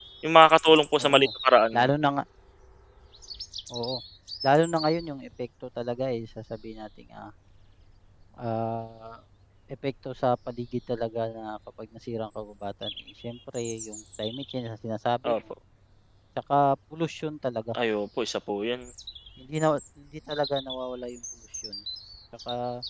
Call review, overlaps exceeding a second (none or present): none